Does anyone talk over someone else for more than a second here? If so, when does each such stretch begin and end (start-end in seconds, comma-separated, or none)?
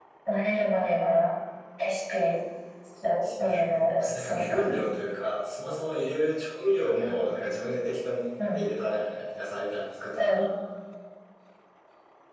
3.4-4.8